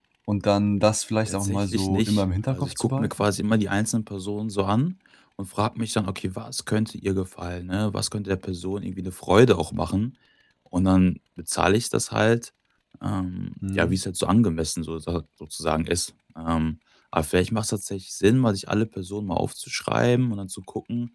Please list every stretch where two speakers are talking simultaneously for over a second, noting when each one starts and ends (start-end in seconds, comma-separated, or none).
1.3-3.1